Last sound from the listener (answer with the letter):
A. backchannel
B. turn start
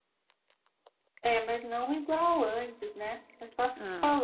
B